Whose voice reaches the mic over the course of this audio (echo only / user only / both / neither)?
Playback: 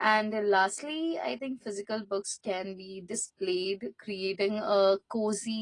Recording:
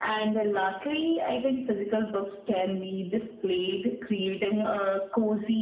echo only